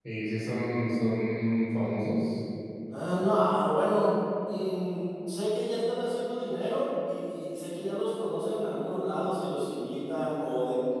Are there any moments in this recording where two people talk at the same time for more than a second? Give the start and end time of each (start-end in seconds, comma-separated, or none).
none